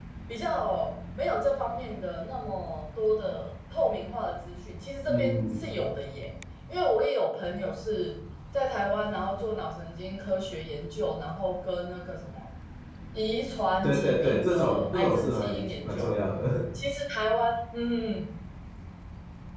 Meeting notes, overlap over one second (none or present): present